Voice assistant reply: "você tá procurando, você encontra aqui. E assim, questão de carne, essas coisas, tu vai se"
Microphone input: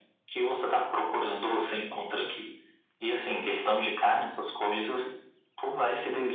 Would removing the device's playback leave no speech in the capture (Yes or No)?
Yes